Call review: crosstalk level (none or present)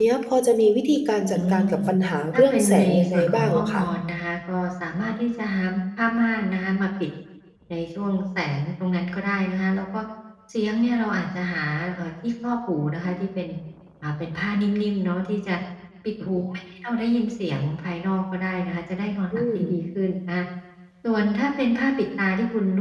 present